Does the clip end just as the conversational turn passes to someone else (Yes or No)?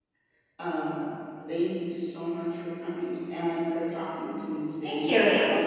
Yes